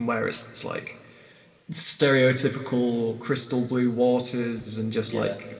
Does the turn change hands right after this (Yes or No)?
No